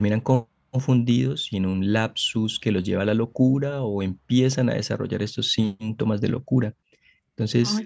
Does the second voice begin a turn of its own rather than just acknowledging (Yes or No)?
No